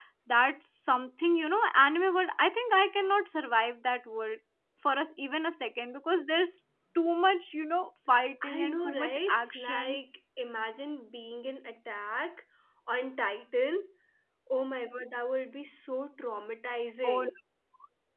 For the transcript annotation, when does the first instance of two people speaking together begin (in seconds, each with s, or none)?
8.4 s